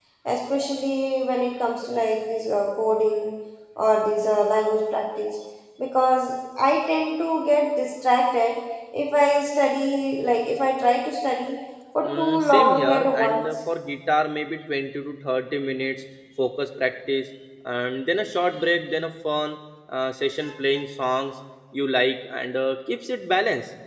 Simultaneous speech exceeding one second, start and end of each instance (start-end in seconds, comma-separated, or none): 12.0-13.6